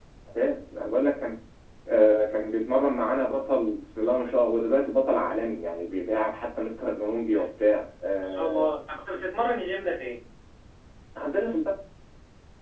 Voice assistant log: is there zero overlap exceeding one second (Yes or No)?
Yes